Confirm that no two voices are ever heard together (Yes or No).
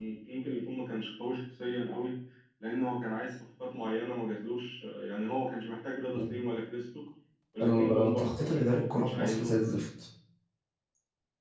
No